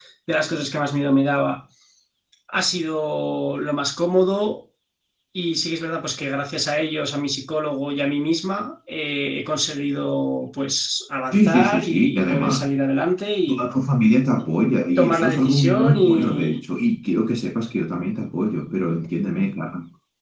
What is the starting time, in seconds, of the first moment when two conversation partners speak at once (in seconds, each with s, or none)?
11.3 s